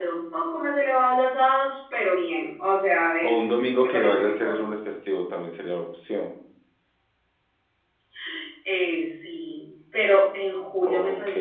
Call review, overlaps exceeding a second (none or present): present